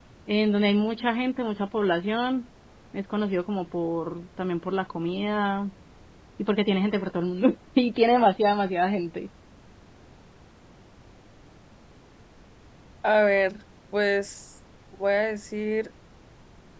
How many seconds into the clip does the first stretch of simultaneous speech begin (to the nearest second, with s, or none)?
none